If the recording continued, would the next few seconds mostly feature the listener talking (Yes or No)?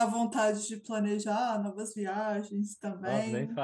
Yes